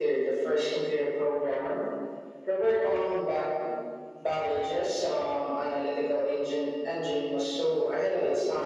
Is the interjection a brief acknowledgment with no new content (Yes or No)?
No